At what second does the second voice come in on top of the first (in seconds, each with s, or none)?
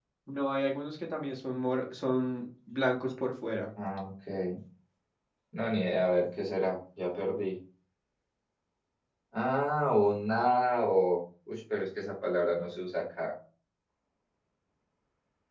none